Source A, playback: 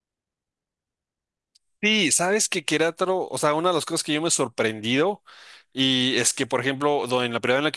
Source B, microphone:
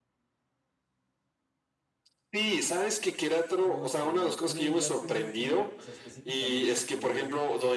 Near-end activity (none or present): present